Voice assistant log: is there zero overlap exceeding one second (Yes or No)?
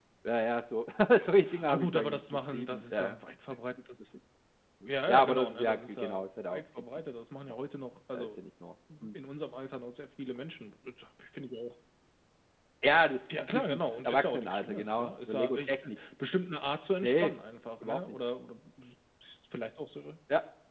No